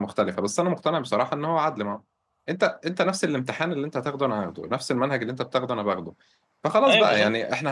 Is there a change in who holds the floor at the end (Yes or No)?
No